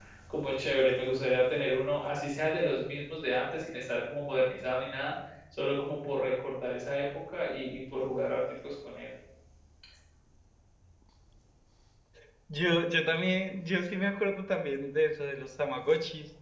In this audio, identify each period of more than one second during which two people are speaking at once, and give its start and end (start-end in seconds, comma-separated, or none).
none